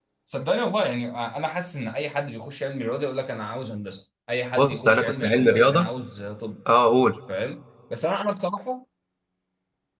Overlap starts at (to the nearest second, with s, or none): 5 s